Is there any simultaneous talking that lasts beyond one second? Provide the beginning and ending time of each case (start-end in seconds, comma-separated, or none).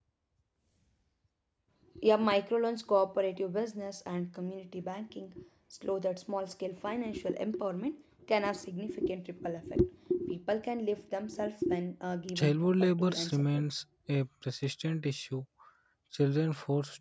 12.3-13.7